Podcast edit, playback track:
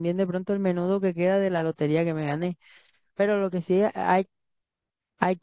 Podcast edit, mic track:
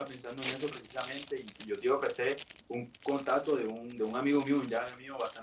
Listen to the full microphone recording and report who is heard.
user only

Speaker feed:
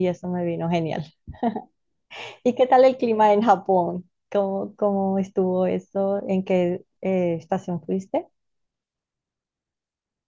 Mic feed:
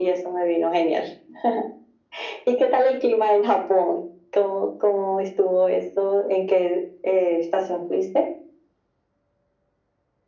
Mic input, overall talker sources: echo only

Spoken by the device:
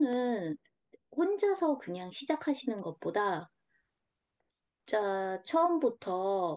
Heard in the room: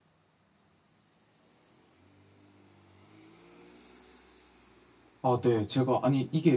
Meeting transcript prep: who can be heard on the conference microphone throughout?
user only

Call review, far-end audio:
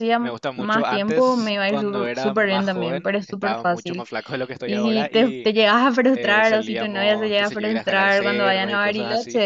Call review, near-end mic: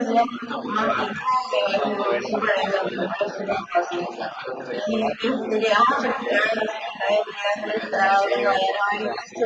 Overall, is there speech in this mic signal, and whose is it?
echo only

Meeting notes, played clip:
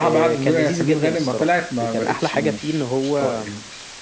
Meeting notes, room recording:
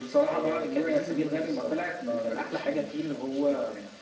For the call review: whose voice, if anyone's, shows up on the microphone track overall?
echo only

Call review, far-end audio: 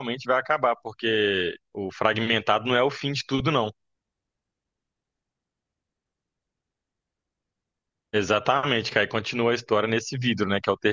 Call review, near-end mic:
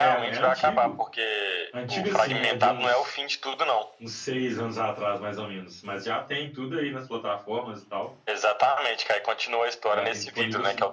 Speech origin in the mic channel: both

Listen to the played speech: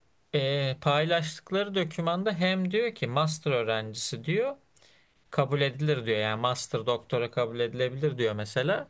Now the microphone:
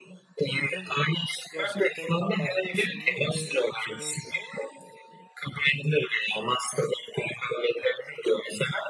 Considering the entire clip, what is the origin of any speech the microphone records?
both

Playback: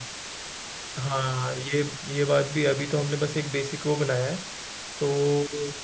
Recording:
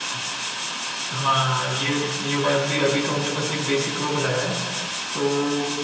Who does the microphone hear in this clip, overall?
echo only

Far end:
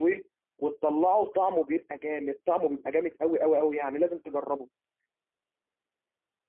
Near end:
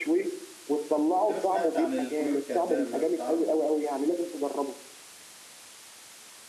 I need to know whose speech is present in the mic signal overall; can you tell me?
both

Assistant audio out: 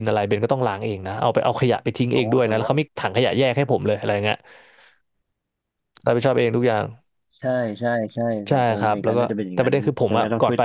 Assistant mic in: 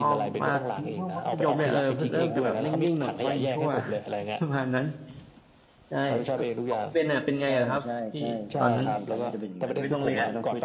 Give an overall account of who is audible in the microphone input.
both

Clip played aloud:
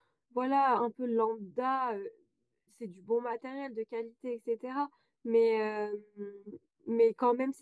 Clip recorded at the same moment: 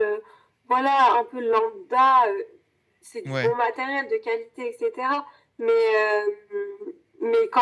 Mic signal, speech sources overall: both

